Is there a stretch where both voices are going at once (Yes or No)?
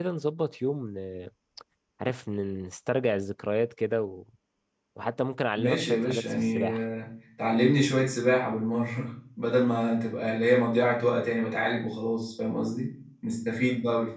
Yes